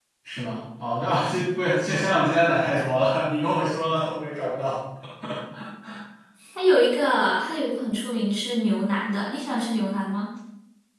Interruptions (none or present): none